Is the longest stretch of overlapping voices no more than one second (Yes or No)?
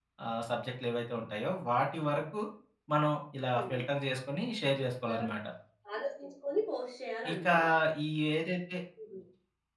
Yes